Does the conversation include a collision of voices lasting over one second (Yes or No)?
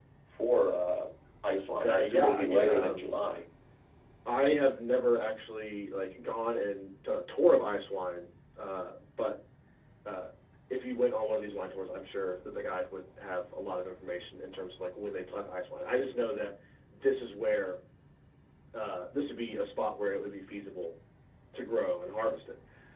Yes